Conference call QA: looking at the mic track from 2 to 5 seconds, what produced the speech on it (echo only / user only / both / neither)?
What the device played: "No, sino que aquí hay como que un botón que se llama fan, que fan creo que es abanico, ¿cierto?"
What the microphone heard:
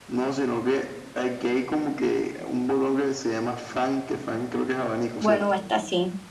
echo only